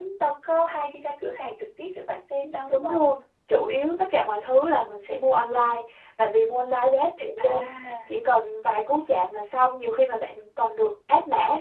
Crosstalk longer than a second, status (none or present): none